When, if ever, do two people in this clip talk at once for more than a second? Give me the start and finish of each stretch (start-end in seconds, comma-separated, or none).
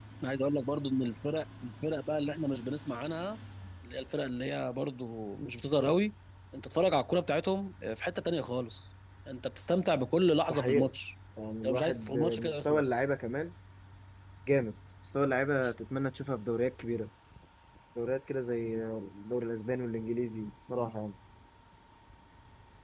11.6-13.0